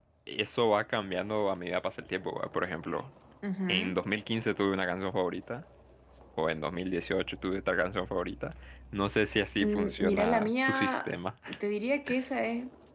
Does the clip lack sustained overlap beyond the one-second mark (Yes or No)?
No